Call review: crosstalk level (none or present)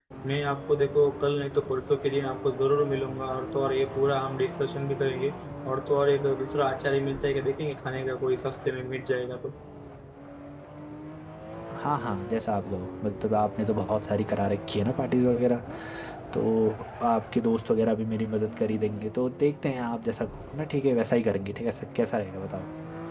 none